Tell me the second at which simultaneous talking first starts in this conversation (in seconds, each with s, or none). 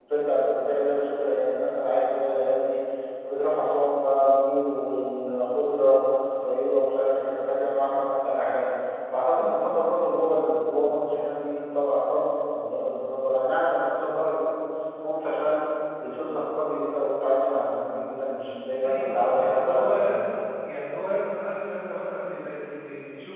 18.8 s